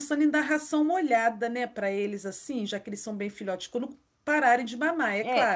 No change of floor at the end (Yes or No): No